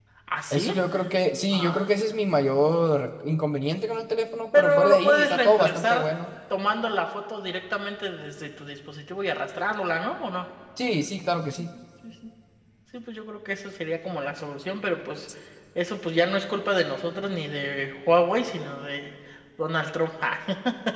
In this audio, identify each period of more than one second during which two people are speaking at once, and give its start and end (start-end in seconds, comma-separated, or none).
4.5-6.0